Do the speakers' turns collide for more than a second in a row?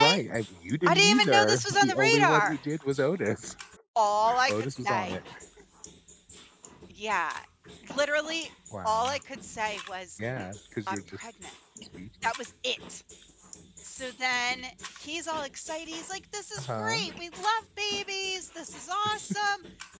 Yes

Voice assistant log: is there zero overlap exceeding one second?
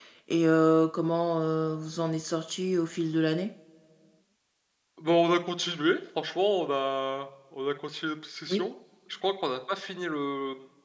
Yes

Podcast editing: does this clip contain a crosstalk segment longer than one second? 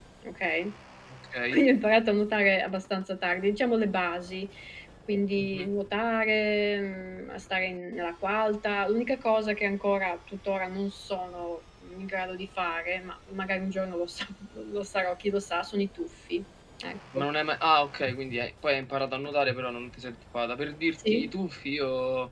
No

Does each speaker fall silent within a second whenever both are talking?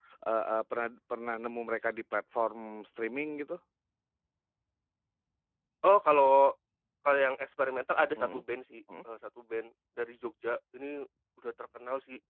Yes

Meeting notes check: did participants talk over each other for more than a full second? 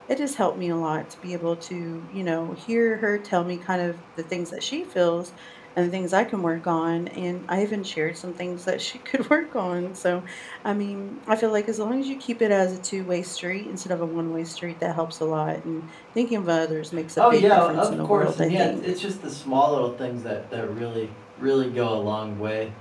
Yes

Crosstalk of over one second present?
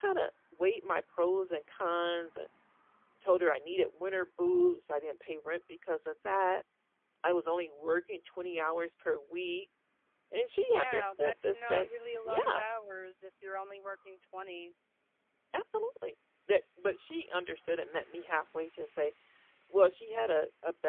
Yes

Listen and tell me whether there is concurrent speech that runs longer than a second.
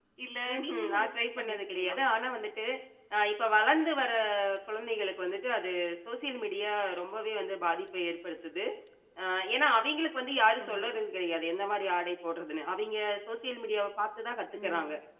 Yes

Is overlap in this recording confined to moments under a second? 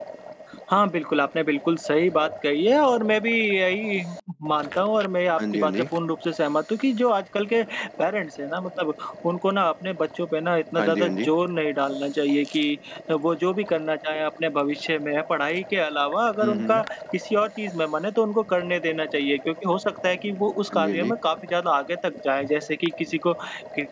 Yes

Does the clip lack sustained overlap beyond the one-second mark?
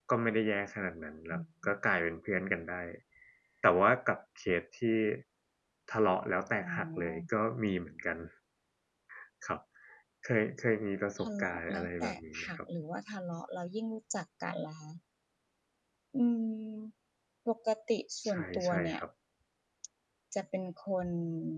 No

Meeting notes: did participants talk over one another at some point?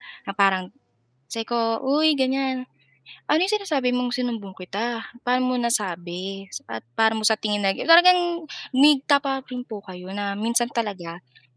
No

